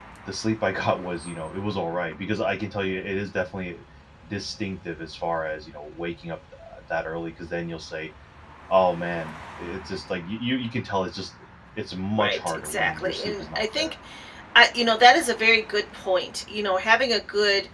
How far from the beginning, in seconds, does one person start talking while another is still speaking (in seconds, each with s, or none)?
12.2 s